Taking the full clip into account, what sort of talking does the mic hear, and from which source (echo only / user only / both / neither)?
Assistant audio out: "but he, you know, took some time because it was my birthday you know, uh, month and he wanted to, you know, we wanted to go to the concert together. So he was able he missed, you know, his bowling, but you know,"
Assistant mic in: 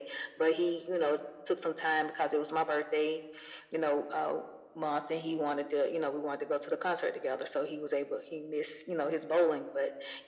echo only